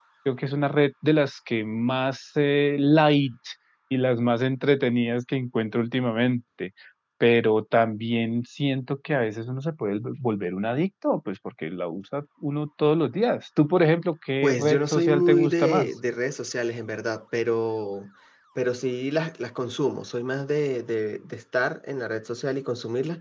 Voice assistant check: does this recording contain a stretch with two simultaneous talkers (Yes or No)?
Yes